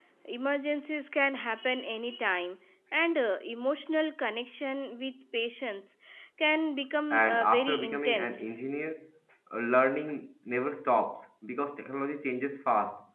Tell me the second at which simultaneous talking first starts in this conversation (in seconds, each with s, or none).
7.1 s